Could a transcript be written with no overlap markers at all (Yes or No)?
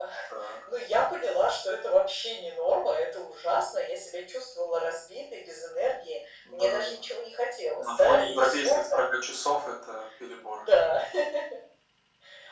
No